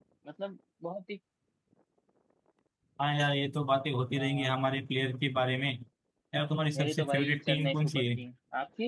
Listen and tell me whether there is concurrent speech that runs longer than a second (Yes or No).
Yes